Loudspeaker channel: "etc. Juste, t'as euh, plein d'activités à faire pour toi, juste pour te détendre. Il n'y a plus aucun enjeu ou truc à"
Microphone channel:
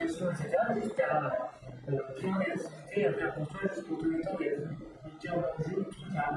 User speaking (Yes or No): No